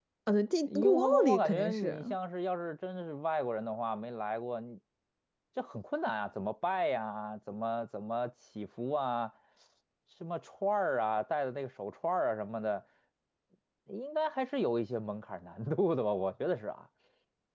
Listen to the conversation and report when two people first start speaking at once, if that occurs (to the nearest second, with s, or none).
1 s